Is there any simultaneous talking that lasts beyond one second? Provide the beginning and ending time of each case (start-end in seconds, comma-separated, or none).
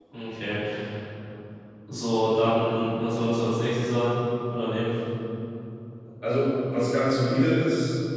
none